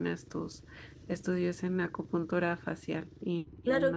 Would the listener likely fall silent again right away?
No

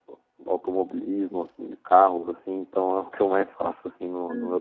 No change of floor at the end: No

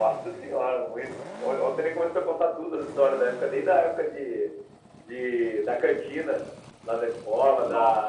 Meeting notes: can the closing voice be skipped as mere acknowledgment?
Yes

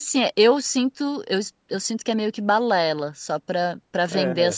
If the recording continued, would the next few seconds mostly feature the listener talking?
Yes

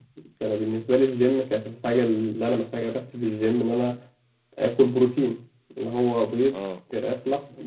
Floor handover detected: No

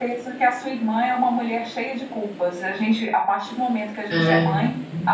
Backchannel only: Yes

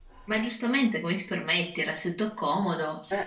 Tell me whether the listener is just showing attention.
No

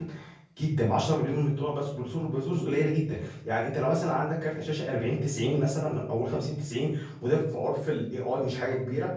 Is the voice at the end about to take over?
No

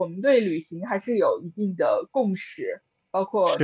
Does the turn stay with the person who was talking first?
Yes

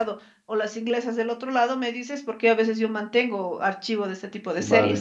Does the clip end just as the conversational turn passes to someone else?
Yes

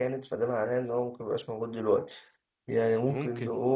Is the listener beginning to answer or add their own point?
No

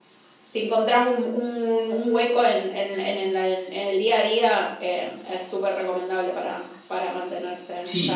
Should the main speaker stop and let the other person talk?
Yes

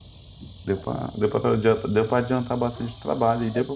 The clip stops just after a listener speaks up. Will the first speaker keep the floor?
Yes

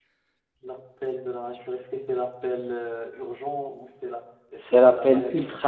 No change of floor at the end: No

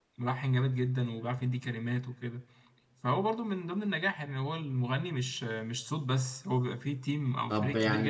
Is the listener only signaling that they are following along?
No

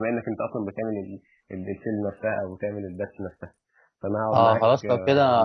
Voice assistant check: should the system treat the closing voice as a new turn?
Yes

